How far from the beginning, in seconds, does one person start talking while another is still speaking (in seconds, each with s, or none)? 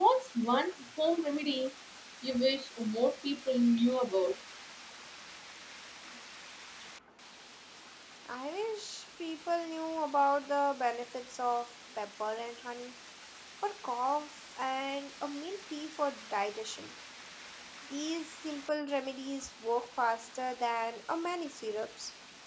none